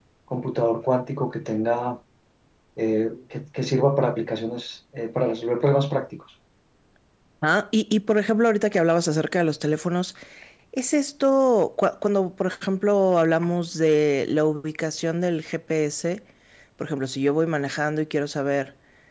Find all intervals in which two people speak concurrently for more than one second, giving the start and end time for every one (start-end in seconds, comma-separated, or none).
none